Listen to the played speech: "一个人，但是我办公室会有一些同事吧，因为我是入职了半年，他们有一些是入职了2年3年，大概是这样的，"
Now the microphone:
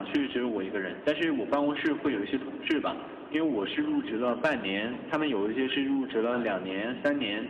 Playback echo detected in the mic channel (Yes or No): Yes